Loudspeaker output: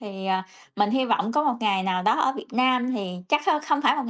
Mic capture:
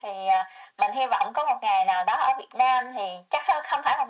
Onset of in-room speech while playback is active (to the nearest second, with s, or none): none